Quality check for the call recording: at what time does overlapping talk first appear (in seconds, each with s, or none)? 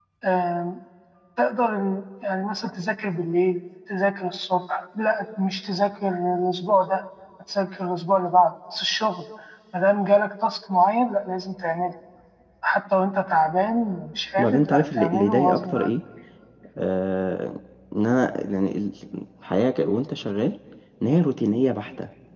14.4 s